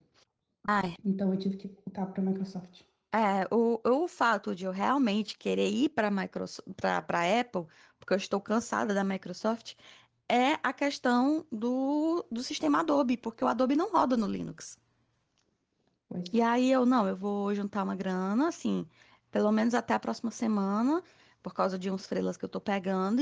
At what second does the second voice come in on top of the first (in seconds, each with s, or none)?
none